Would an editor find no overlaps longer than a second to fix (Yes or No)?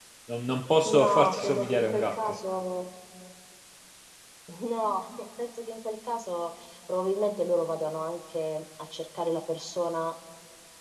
No